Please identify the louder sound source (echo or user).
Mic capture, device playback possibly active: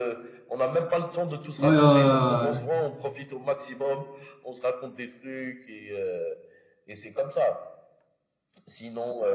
user